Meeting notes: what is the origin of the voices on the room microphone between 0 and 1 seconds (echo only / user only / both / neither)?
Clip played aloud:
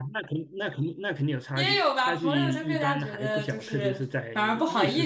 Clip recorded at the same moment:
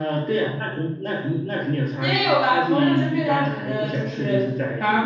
echo only